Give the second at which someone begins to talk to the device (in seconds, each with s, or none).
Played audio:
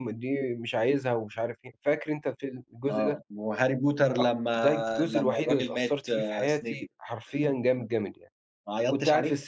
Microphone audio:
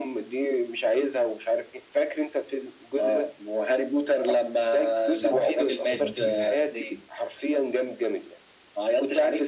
5.2 s